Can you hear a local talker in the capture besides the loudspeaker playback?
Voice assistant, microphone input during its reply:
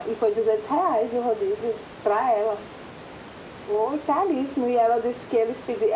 No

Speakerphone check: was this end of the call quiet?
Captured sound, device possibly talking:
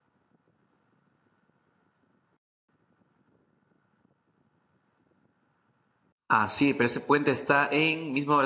No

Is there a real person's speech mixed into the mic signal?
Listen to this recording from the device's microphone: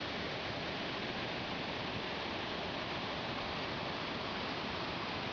No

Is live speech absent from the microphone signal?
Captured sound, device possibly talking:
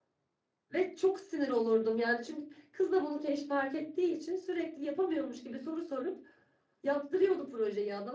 No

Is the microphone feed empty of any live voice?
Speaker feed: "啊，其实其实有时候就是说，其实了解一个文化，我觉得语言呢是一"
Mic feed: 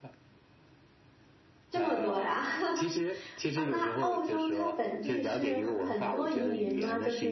No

